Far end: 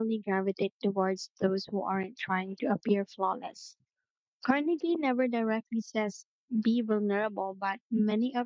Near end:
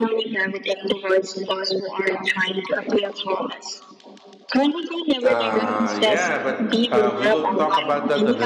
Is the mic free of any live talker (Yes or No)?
No